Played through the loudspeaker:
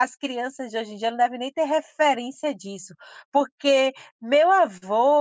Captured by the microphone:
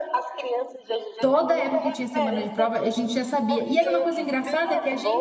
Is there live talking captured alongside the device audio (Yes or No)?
Yes